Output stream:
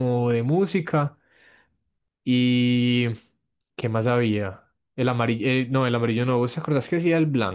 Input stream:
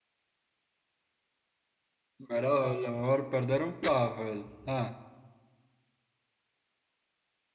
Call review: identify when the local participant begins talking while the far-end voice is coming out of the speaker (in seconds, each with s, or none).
2.3 s